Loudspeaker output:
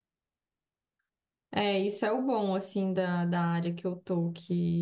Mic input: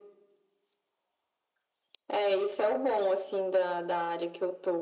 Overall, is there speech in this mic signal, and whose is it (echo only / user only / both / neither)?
echo only